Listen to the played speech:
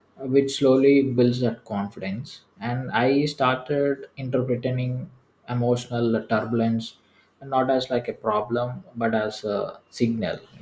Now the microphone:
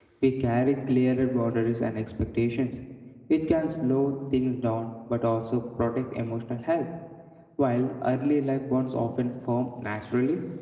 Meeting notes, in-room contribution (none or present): present